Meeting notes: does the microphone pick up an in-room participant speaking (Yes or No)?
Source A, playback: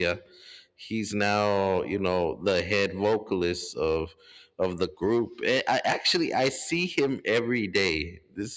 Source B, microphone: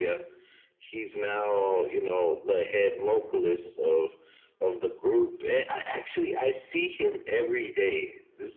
No